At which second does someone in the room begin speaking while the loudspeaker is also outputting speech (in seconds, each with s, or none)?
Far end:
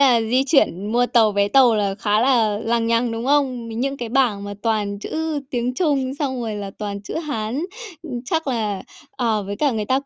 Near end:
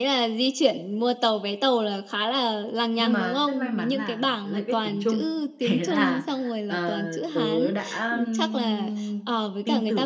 3.0 s